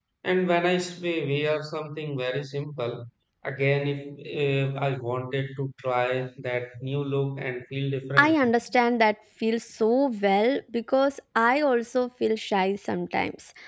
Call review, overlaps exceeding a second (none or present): none